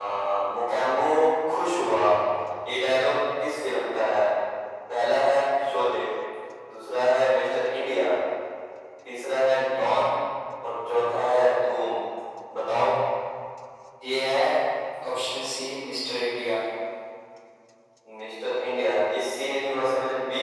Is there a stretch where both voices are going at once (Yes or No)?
No